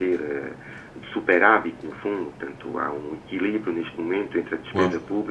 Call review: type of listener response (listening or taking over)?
listening